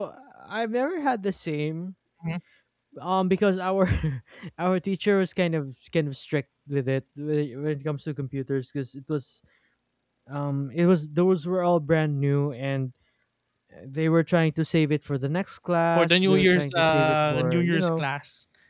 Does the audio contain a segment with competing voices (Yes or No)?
Yes